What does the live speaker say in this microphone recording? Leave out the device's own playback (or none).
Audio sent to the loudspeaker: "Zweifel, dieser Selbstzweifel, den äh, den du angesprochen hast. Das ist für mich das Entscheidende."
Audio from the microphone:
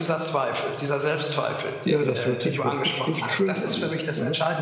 ja, das hört sich wirklich nicht schön an, ne?